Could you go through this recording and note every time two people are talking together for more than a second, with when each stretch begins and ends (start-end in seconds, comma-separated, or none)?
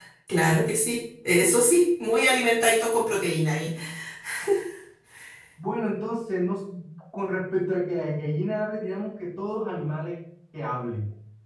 none